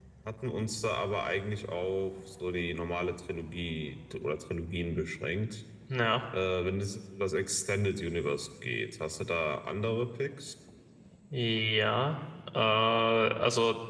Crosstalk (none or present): none